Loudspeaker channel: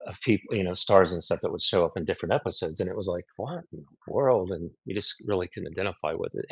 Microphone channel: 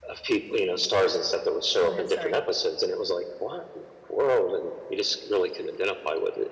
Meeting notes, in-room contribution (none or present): present